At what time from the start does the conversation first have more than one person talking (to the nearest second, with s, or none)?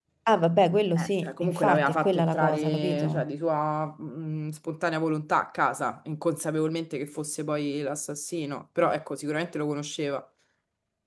1 s